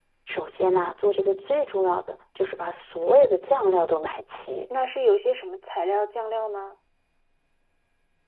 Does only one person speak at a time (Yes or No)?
Yes